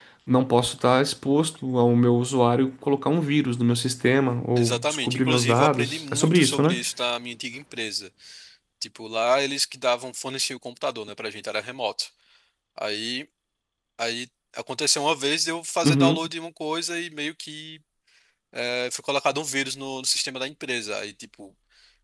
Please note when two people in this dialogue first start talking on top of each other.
4.5 s

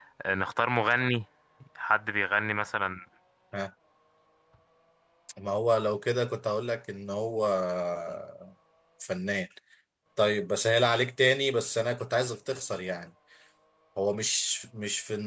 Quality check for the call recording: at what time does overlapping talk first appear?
none

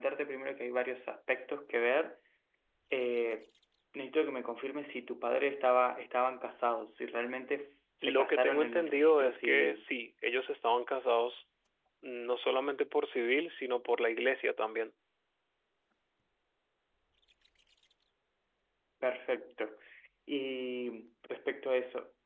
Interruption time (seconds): 8.0 s

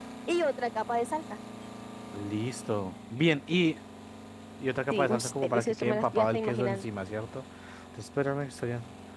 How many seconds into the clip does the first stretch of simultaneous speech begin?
4.9 s

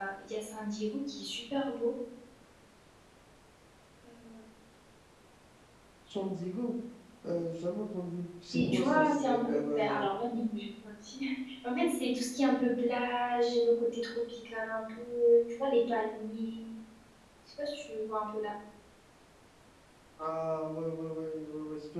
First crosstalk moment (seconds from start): 8.5 s

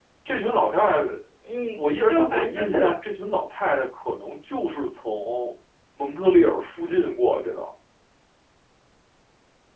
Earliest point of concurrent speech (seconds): 1.8 s

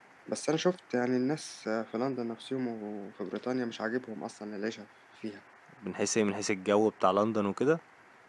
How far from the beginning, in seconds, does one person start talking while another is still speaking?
none

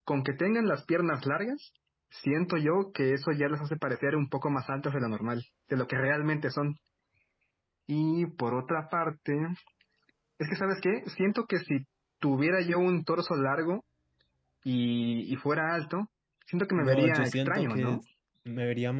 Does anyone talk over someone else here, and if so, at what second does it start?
16.8 s

